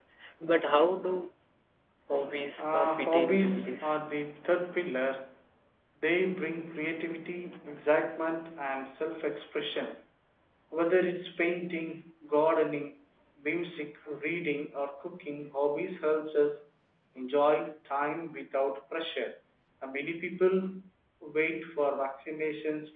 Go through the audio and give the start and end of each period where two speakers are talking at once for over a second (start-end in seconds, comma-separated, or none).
2.6-4.0